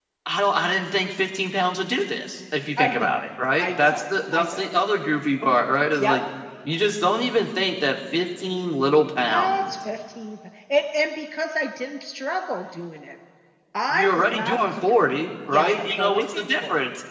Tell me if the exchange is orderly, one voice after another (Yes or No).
No